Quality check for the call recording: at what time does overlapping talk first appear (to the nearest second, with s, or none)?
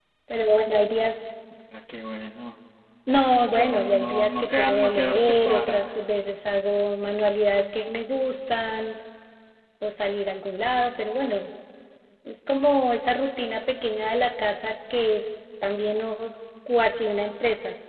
3 s